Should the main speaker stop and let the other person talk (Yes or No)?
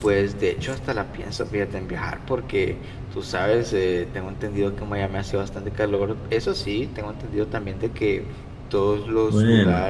No